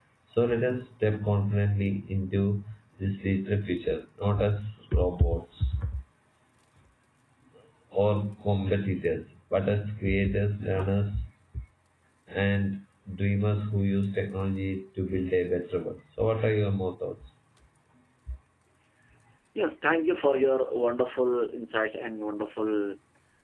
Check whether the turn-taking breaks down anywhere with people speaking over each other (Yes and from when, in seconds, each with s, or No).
No